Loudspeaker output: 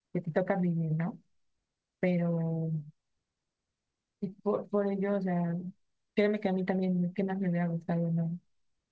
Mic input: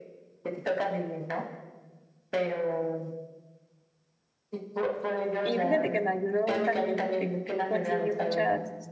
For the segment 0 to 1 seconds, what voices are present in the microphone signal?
echo only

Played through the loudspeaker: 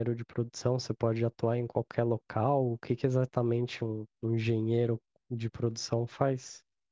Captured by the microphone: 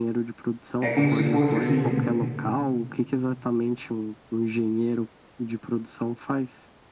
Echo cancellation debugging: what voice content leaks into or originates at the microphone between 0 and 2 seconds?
both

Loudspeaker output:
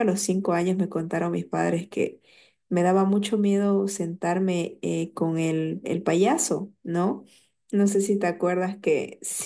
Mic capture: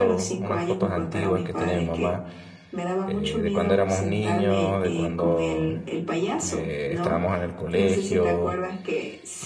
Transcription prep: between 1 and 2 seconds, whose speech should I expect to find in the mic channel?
both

